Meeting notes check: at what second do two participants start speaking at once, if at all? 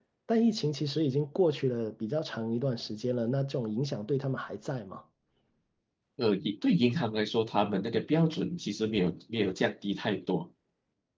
none

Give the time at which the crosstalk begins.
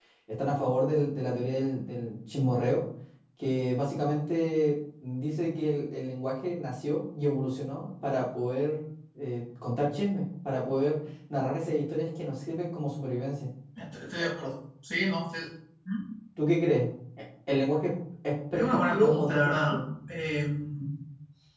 18.5 s

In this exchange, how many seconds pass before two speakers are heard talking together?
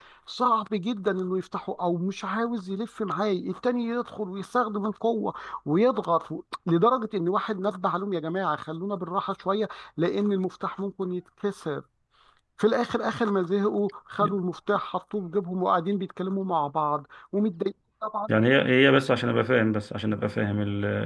none

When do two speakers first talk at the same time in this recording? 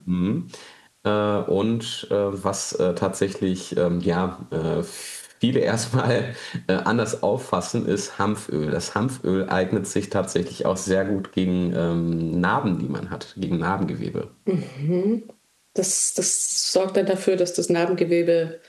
none

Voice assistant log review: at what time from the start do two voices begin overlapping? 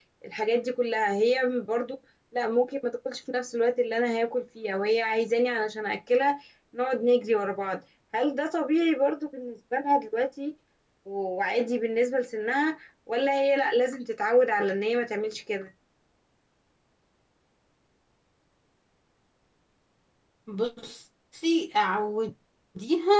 none

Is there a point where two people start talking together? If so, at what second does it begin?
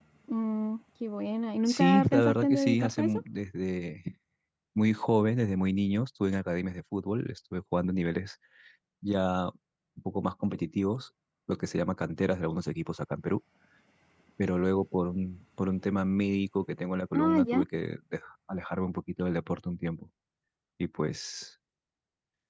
1.7 s

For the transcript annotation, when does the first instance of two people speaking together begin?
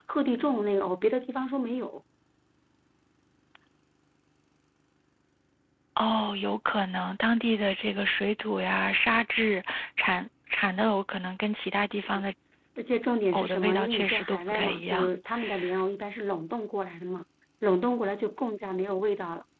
13.3 s

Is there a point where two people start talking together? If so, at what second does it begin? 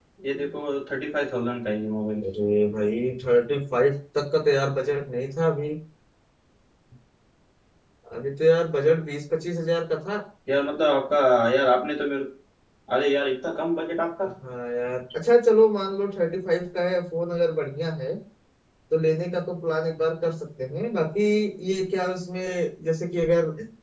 none

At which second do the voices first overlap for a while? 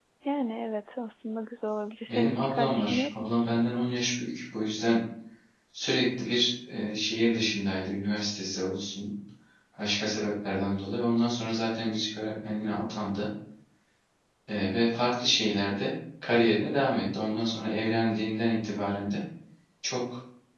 2.1 s

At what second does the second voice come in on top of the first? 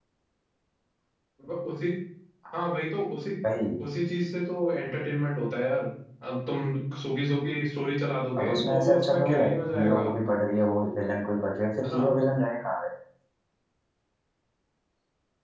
8.4 s

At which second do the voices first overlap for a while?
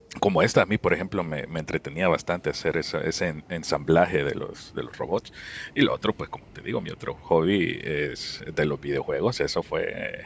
none

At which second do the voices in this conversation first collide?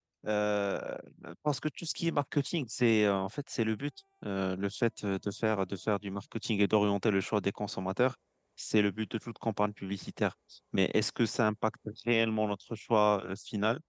none

